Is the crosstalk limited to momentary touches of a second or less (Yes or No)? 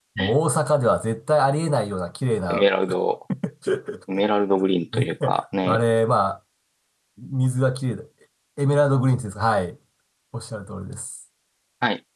Yes